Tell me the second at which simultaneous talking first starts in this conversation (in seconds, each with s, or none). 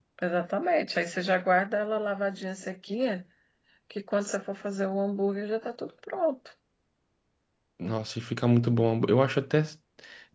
none